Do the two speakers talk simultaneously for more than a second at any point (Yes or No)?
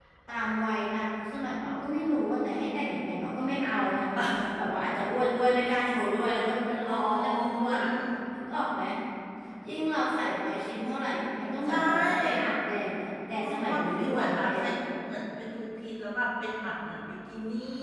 Yes